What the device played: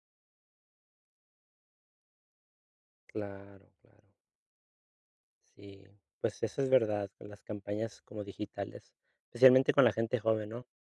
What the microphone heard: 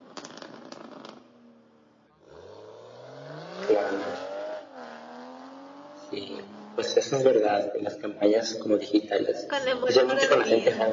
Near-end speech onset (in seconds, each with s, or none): 9.5 s